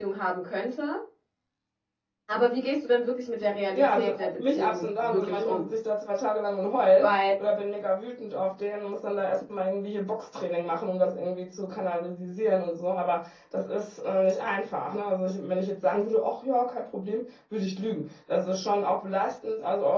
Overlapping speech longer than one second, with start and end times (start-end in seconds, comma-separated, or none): 3.8-5.7